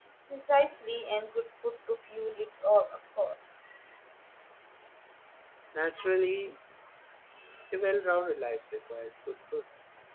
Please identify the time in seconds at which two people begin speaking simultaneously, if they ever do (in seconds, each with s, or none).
none